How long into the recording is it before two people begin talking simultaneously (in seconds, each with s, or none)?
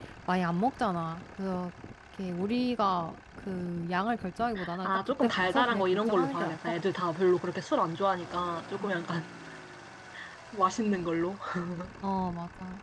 4.8 s